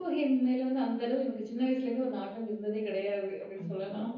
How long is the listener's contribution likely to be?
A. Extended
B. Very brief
A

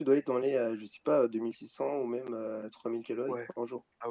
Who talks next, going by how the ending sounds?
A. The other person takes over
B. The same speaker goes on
A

